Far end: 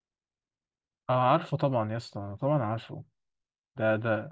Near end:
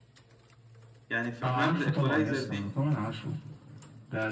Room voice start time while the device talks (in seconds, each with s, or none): 1.1 s